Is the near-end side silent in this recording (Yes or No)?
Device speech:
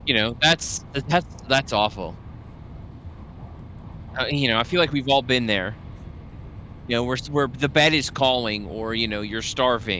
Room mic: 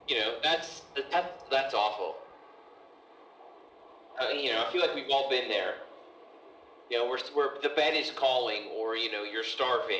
Yes